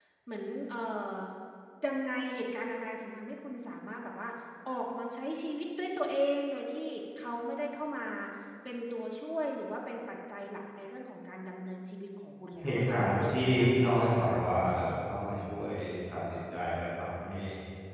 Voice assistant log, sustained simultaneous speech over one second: present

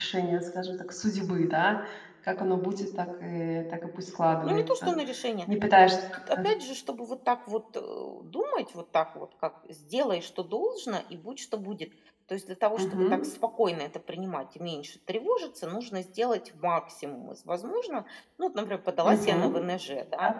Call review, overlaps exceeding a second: none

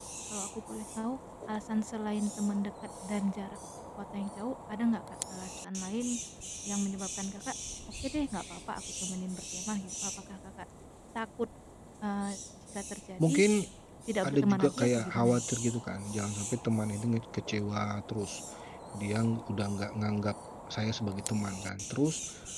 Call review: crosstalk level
present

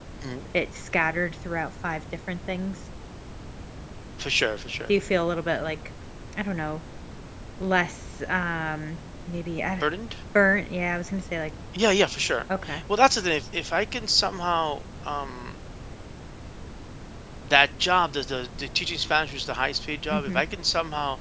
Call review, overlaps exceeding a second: none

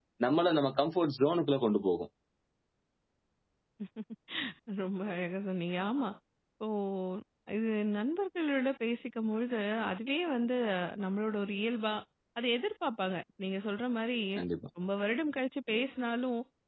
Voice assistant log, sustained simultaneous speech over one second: none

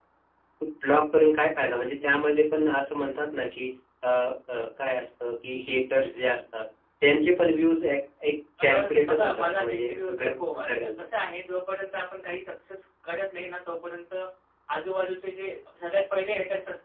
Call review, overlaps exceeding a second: present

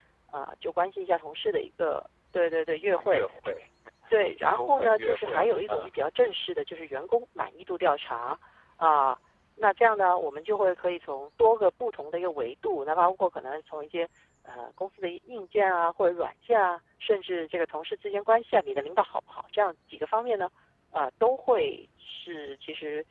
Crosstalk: present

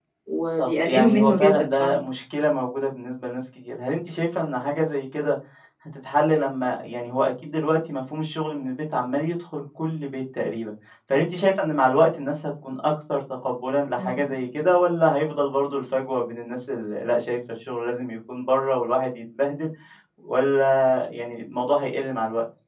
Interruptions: present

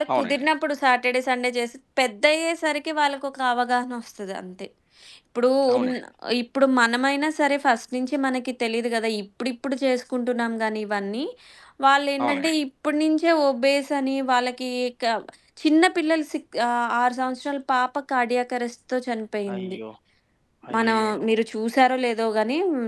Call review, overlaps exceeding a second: none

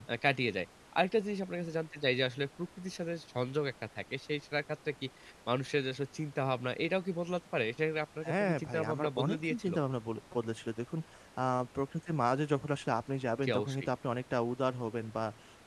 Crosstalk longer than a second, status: present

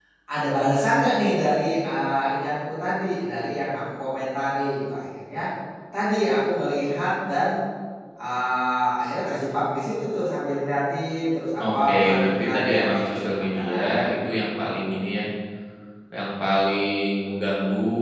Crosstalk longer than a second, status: present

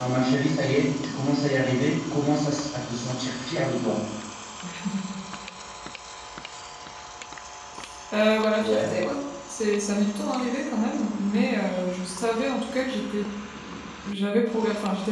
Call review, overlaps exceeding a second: none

